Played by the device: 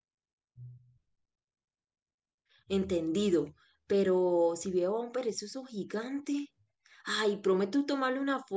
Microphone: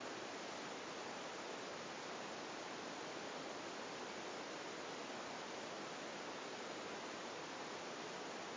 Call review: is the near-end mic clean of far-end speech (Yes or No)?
Yes